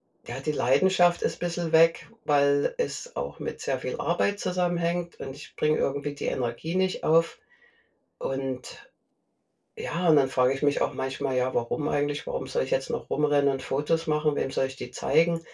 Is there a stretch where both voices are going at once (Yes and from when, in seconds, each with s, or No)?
No